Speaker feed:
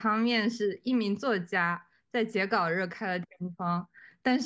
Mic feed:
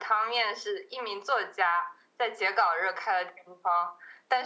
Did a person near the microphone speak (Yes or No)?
No